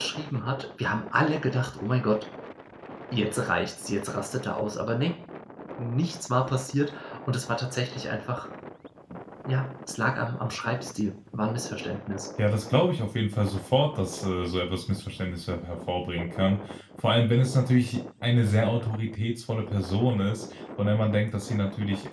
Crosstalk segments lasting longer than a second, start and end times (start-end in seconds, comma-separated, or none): none